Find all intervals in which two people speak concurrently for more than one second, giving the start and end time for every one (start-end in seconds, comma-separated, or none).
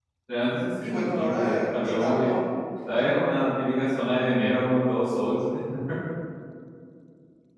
0.8-2.4